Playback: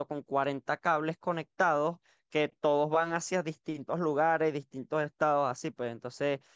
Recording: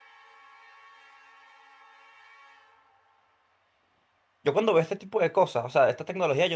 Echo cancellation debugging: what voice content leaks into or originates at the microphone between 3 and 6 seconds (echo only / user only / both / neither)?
user only